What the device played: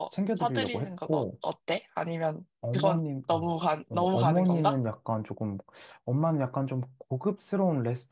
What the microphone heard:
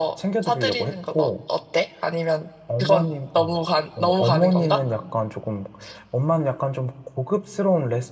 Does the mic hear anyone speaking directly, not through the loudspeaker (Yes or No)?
No